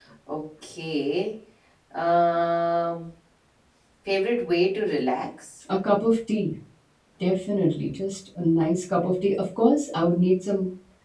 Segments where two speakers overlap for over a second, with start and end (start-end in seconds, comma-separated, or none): none